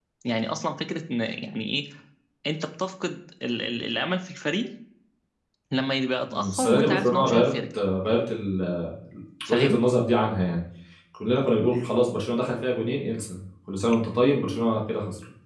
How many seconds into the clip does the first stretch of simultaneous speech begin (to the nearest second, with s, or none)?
6 s